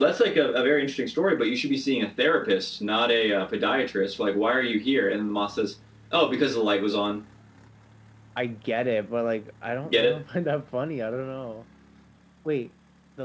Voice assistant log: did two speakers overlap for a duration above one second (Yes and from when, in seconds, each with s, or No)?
No